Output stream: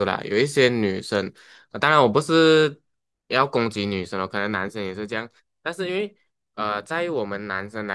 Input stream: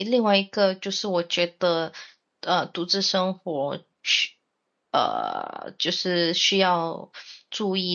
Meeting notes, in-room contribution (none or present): present